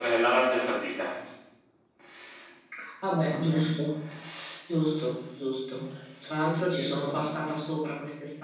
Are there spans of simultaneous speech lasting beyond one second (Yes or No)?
No